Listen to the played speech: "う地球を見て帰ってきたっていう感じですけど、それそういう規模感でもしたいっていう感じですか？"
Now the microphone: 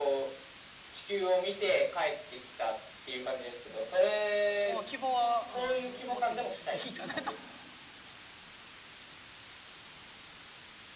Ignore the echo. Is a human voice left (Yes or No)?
Yes